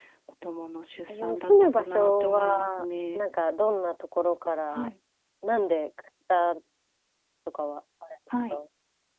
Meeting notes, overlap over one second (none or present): present